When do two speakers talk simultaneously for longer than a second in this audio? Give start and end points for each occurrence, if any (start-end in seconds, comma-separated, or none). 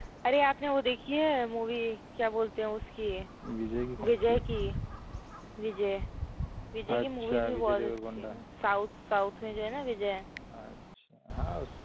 7.0-8.4